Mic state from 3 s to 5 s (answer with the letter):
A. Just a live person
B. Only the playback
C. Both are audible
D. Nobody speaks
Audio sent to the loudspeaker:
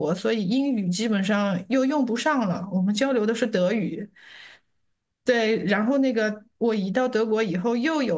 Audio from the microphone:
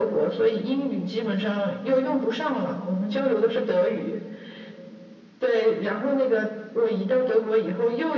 B